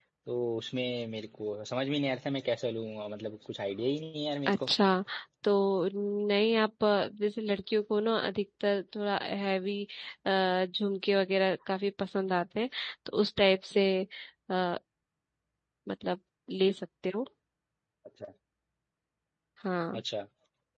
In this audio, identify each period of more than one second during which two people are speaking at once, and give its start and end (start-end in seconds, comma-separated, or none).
none